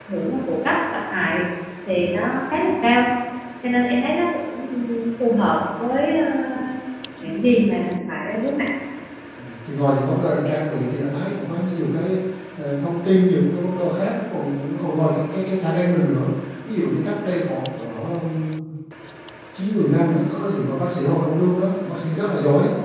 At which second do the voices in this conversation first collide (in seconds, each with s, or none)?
none